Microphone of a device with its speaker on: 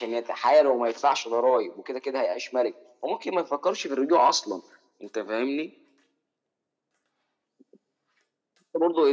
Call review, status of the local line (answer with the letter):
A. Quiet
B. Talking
A